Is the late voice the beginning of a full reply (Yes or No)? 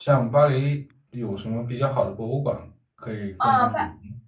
Yes